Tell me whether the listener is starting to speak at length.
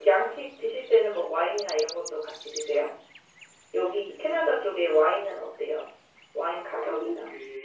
Yes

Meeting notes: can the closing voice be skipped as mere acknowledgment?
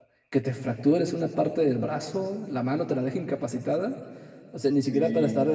Yes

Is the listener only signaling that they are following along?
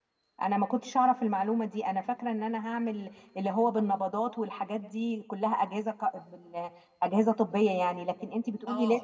No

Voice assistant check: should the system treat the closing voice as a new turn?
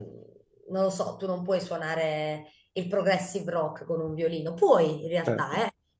No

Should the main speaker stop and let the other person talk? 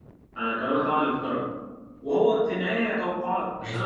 No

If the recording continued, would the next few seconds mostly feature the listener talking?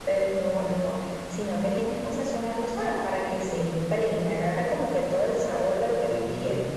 Yes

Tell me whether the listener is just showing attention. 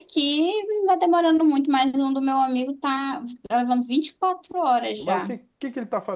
No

